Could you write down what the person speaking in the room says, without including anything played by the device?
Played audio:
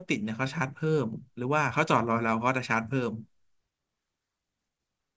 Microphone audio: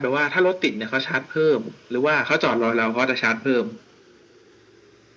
none

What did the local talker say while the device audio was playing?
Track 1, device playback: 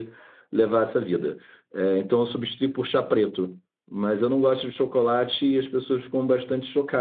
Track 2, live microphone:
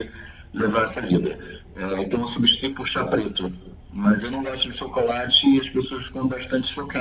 none

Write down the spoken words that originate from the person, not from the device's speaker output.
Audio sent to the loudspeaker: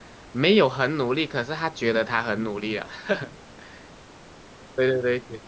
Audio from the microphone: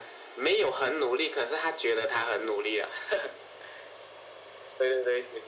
none

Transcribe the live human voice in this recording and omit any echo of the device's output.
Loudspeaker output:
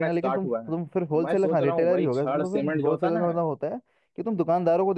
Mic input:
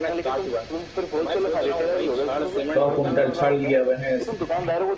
सौ कुंटल छड़ लिए हुए हैं

